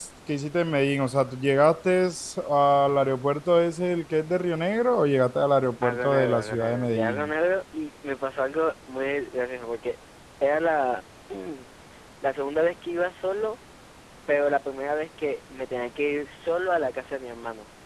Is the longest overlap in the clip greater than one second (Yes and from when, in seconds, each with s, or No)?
Yes, from 5.8 s